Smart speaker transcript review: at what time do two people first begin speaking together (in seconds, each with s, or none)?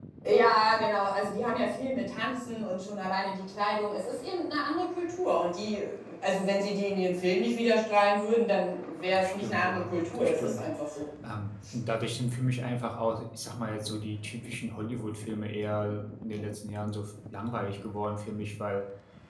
9.1 s